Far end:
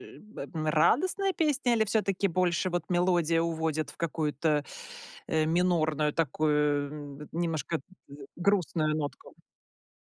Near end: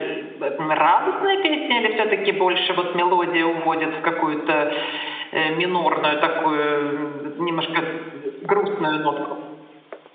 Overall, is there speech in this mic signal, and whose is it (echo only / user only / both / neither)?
echo only